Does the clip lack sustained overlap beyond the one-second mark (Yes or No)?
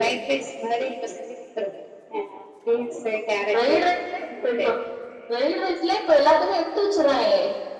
Yes